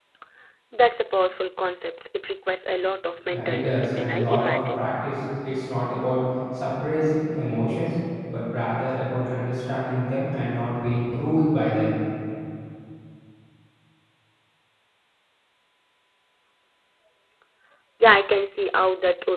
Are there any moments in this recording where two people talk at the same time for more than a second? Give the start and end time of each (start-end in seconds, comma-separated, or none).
3.3-4.8